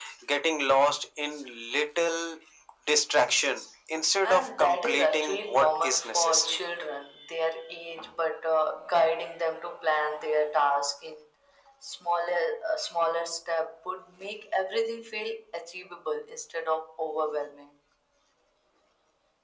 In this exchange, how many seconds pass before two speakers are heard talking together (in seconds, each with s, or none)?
4.2 s